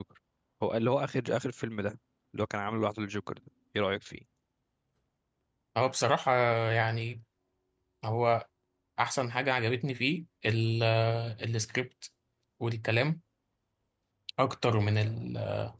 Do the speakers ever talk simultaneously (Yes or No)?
No